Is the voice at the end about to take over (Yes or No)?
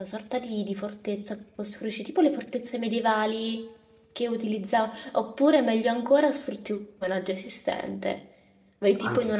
No